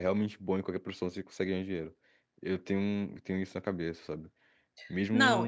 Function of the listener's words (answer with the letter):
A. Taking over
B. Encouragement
A